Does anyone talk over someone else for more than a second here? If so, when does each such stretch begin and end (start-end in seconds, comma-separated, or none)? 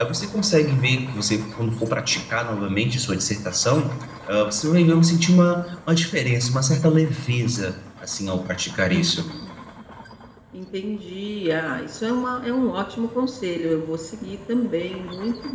none